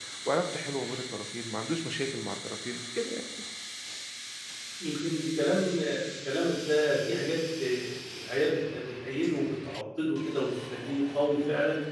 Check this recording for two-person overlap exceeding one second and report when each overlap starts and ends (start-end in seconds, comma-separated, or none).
none